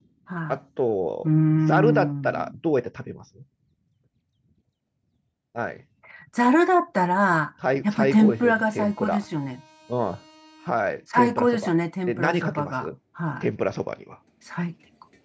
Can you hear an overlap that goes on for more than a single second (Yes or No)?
Yes